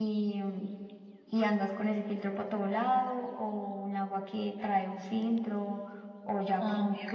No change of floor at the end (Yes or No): Yes